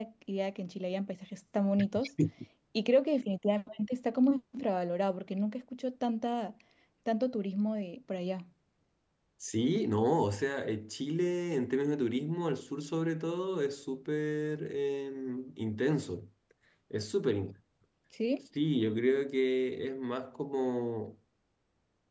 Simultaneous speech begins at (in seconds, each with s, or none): none